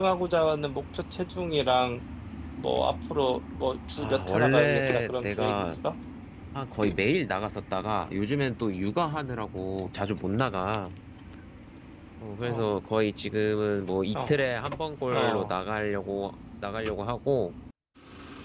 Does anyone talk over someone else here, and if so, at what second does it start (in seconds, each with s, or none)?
4.0 s